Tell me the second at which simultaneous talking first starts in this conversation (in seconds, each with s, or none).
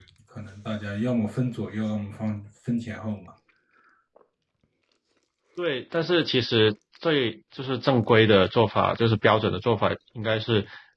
none